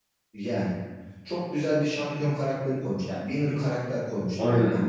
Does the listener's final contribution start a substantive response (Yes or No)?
No